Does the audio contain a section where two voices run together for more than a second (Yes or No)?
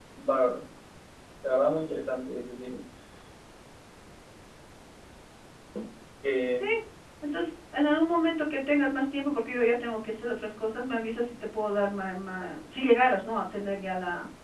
No